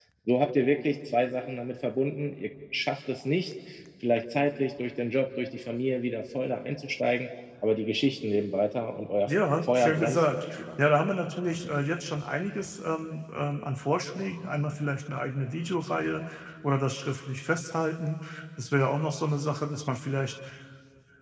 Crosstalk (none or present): present